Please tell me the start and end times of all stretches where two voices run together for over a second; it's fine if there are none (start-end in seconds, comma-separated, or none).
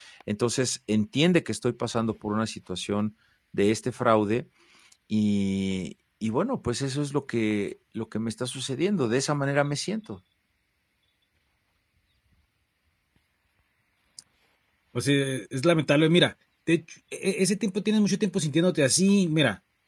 none